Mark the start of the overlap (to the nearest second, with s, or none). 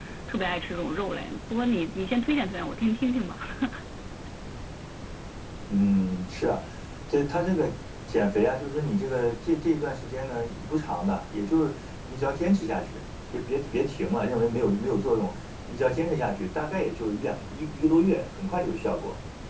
none